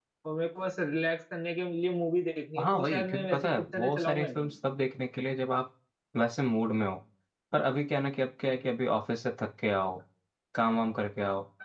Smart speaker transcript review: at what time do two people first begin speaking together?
2.6 s

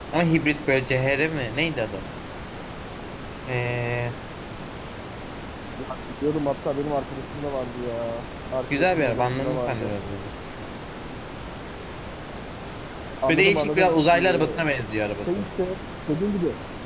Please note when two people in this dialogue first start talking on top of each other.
8.7 s

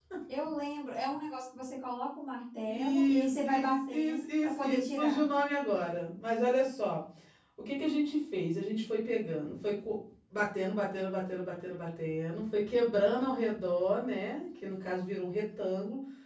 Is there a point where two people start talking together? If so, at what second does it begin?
2.7 s

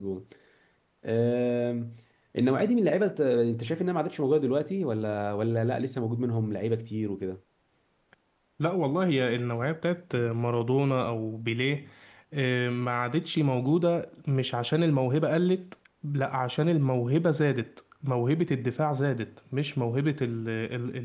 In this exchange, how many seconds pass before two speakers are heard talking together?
none

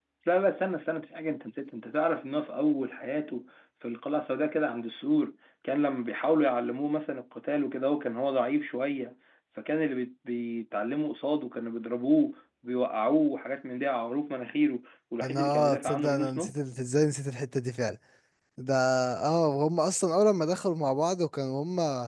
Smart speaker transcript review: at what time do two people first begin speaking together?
15.2 s

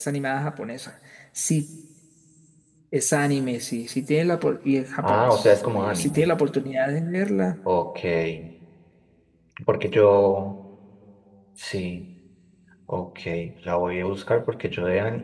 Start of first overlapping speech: 5.0 s

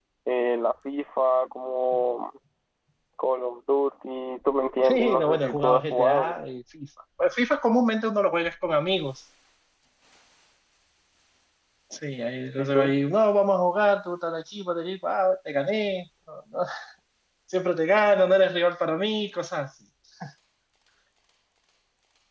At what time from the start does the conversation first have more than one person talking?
4.9 s

